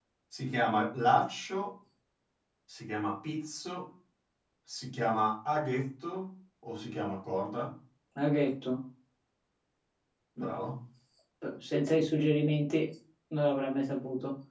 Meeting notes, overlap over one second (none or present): none